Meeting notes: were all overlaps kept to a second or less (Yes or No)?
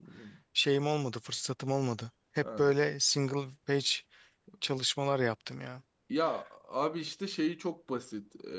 Yes